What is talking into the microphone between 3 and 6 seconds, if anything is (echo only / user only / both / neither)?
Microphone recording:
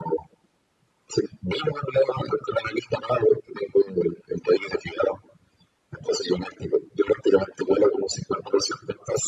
echo only